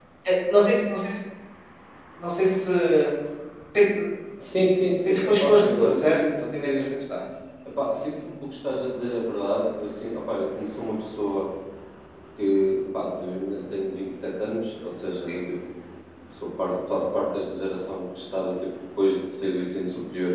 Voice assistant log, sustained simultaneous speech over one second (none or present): present